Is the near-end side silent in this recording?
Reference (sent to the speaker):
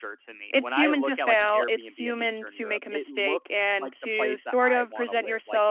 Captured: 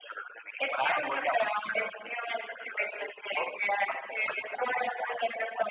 Yes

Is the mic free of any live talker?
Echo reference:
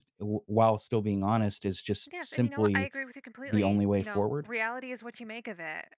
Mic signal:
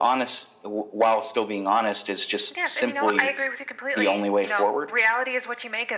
Yes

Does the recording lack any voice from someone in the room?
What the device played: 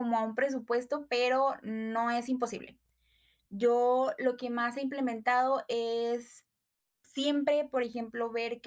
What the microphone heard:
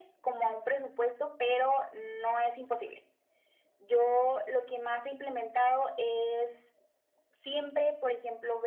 Yes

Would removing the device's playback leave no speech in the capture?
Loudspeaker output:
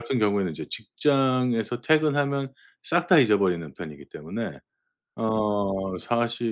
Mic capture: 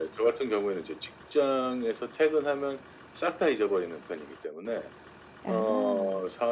No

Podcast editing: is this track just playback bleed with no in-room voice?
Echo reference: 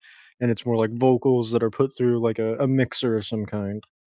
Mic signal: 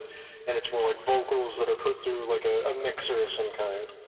Yes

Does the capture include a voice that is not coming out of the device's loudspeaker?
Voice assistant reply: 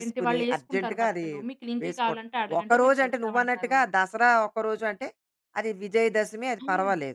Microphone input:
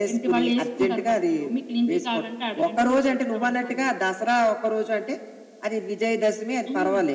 No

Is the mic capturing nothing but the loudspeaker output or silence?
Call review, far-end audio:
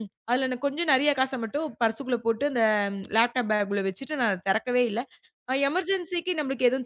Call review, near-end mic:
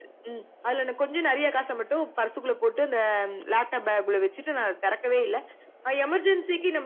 Yes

